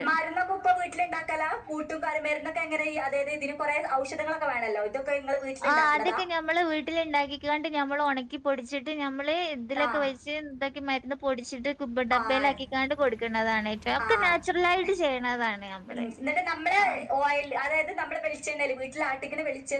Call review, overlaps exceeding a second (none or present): none